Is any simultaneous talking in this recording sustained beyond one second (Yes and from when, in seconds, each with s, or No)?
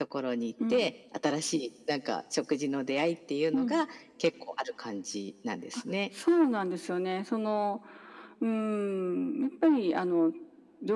No